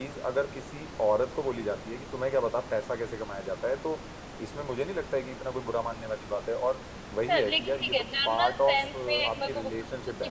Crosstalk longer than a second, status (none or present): present